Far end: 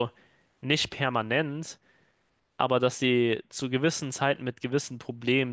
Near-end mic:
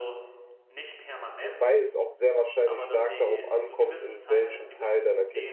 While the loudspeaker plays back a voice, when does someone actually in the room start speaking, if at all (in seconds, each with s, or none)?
1.4 s